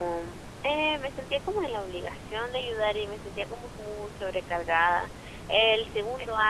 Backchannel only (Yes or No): No